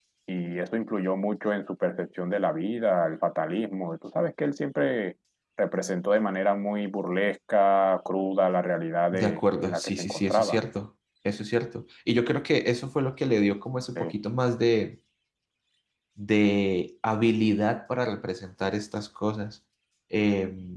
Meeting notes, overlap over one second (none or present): present